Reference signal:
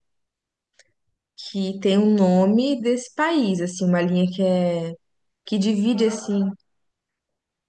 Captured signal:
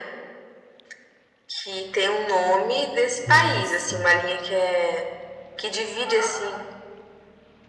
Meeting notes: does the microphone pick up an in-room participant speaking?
Yes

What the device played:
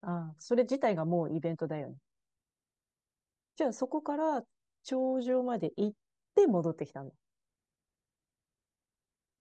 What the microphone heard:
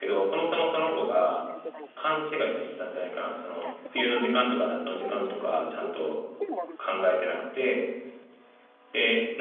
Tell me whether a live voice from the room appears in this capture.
Yes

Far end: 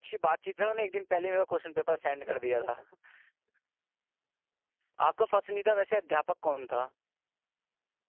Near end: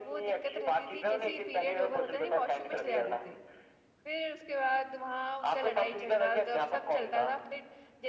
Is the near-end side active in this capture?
Yes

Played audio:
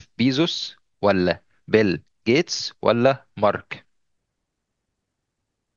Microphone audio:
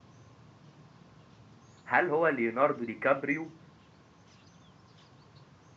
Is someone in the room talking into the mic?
Yes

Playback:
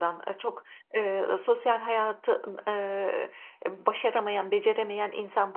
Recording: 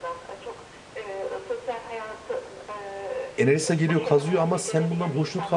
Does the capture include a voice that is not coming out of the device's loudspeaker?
Yes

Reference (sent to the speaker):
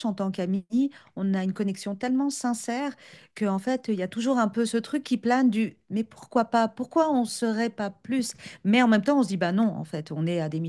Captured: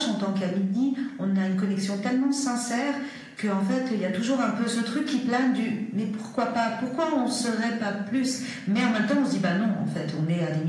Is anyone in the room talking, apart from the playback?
No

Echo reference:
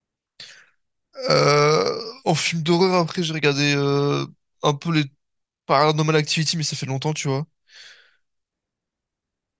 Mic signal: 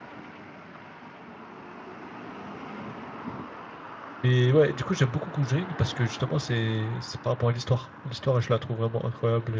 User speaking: Yes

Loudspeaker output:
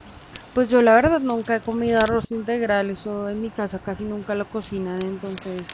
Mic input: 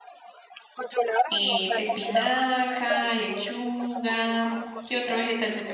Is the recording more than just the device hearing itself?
Yes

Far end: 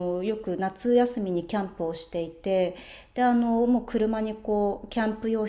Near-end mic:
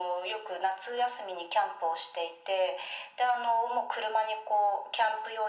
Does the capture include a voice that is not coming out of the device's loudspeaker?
No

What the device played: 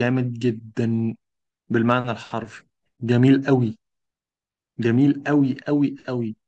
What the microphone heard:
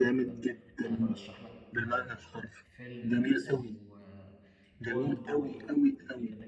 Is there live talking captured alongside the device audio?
Yes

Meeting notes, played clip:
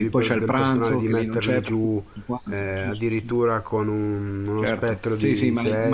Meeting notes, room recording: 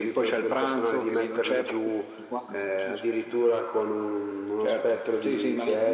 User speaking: No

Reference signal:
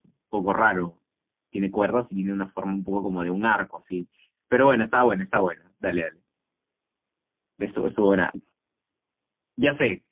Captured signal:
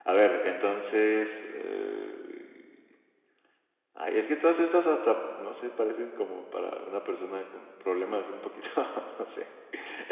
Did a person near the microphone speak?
Yes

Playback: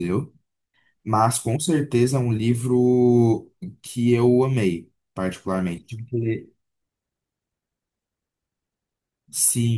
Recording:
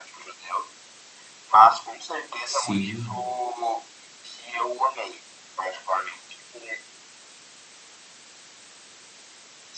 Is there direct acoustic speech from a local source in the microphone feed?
Yes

